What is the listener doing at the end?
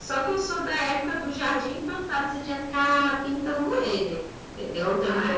taking over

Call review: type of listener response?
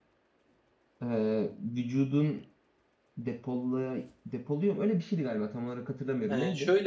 taking over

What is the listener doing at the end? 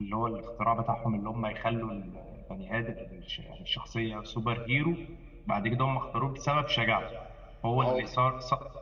listening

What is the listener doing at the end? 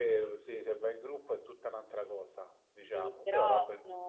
taking over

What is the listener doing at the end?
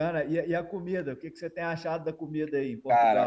taking over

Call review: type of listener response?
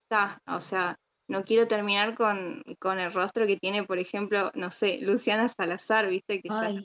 taking over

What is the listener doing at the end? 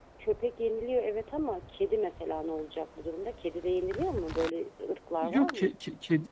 taking over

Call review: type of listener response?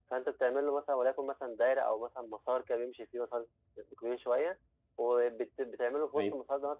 listening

